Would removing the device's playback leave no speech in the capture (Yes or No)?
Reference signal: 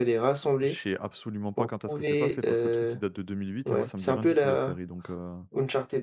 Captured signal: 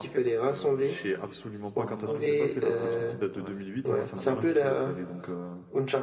No